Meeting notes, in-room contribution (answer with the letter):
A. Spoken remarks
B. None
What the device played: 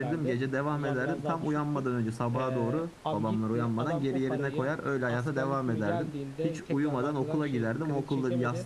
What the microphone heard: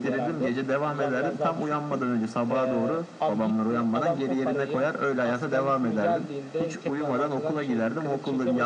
B